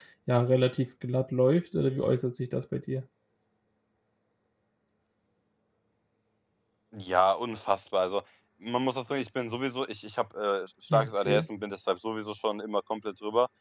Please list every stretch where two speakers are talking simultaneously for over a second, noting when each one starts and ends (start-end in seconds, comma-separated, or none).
none